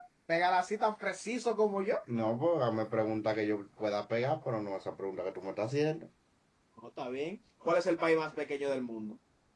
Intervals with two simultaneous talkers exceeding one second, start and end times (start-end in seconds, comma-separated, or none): none